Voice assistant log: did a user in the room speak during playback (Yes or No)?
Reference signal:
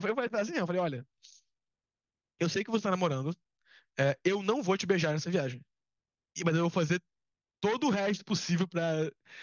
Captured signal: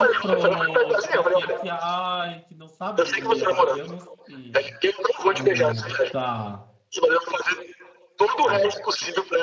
Yes